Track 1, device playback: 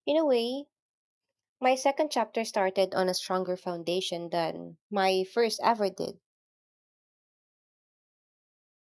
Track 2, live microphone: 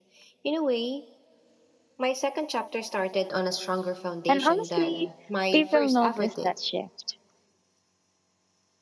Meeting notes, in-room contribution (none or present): present